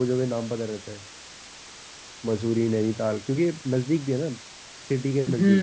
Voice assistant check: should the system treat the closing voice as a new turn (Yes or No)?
Yes